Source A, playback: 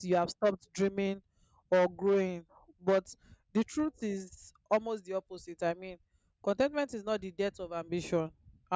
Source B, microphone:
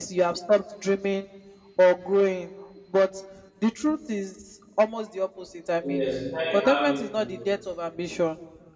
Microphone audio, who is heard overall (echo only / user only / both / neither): both